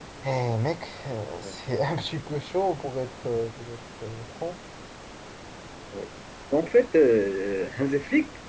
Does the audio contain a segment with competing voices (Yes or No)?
No